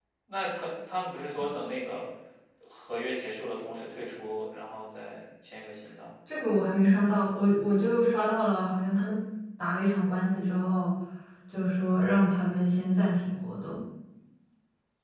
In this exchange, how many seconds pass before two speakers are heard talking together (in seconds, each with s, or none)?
none